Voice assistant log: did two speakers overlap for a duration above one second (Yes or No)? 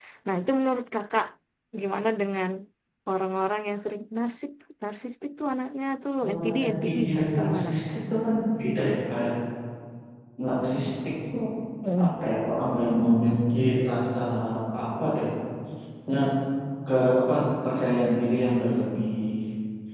Yes